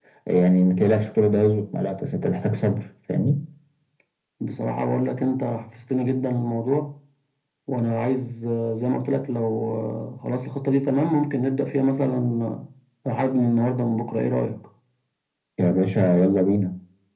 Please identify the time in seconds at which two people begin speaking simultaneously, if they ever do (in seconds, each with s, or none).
none